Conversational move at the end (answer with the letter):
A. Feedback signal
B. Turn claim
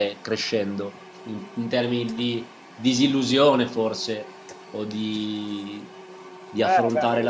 B